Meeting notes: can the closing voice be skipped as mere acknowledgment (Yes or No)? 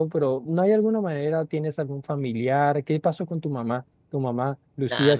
No